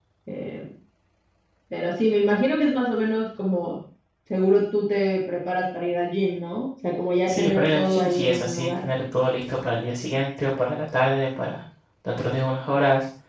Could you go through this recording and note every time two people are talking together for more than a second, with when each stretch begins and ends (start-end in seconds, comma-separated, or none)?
7.3-8.8